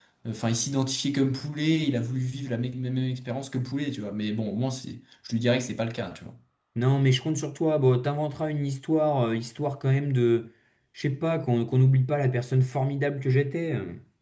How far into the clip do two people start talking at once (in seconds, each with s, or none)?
none